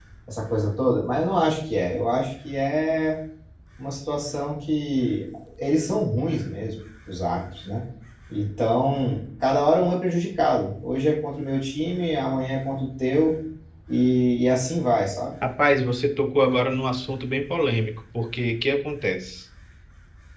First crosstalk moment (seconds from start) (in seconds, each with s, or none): none